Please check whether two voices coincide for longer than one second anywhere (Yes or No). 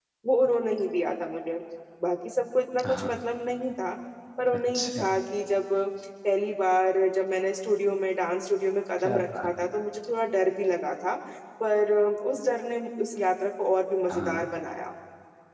No